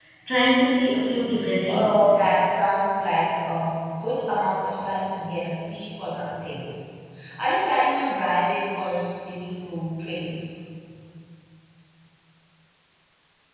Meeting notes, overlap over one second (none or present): none